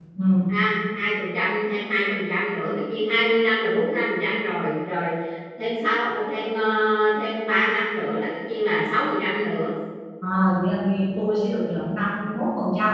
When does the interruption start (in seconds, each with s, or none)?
none